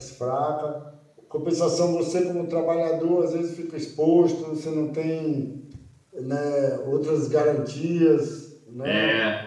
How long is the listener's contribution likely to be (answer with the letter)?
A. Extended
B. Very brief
A